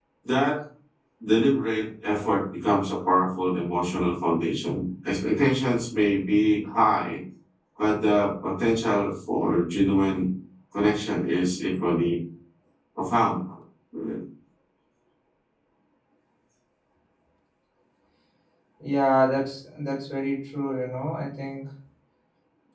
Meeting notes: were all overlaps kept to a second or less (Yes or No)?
Yes